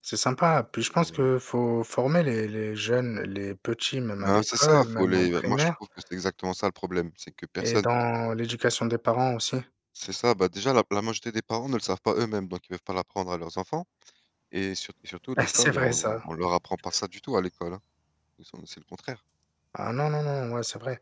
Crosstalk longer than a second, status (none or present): present